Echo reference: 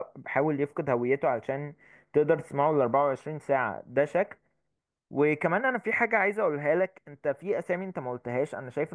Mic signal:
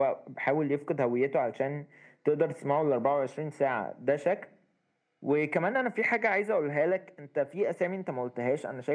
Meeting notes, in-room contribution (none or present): none